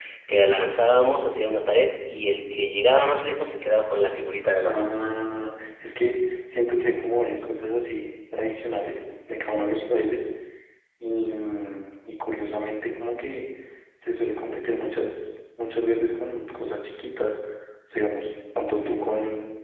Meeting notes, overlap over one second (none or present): none